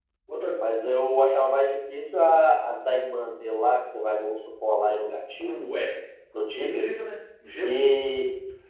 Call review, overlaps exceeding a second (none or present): none